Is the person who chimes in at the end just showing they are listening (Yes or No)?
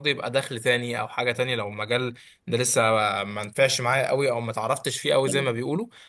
Yes